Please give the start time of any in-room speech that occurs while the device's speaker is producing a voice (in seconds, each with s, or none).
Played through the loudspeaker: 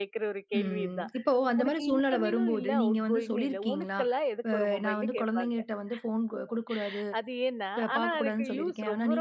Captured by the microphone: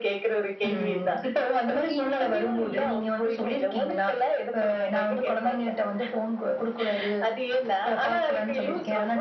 none